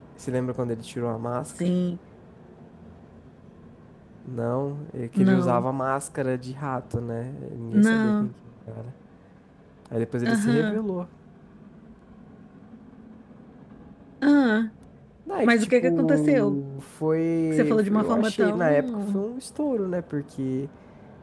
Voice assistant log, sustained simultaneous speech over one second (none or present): present